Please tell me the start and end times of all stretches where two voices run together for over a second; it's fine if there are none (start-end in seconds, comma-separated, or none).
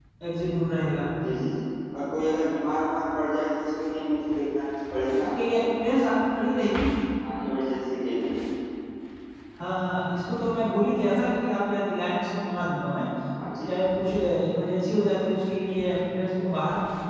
none